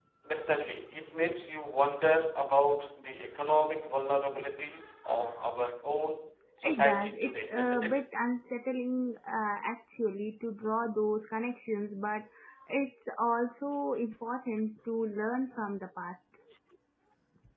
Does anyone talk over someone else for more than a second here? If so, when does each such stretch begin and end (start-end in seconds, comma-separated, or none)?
6.6-8.0